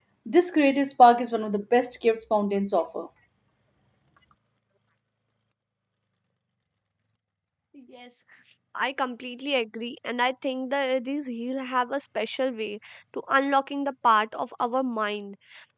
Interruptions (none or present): none